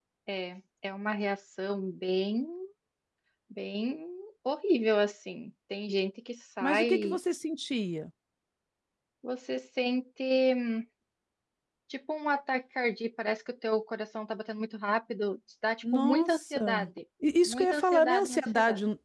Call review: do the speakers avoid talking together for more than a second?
No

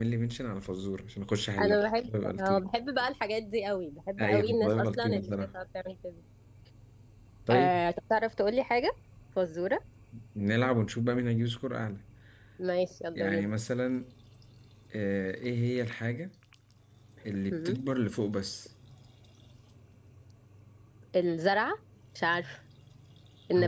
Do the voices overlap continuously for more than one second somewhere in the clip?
Yes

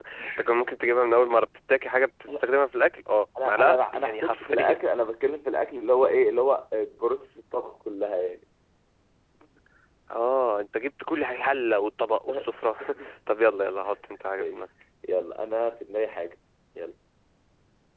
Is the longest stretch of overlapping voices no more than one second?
No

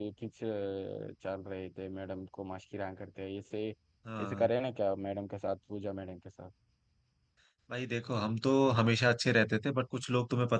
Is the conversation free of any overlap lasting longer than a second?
Yes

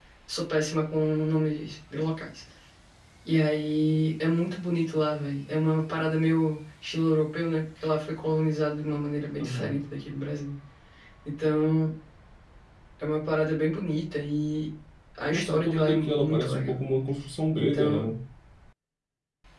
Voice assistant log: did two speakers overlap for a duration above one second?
Yes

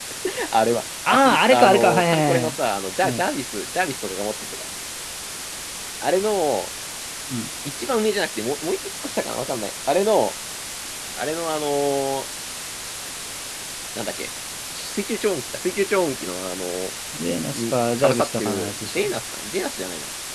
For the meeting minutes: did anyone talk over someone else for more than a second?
Yes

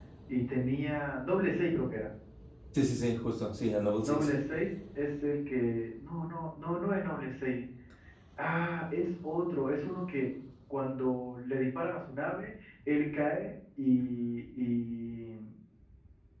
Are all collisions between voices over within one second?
Yes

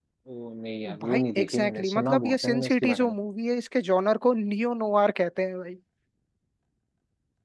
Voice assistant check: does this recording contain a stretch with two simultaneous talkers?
Yes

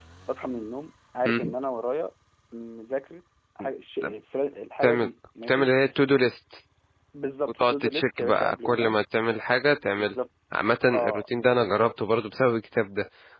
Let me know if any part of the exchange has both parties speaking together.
Yes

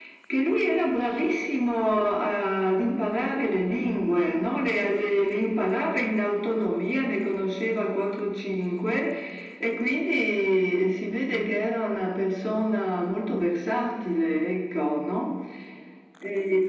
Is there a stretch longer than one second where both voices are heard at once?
No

